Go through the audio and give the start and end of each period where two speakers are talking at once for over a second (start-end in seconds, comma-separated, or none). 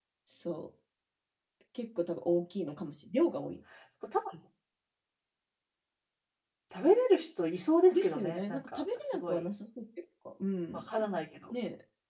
7.9-9.5